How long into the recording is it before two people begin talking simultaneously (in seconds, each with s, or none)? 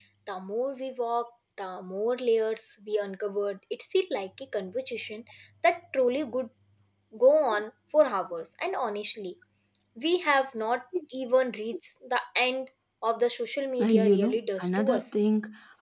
13.8 s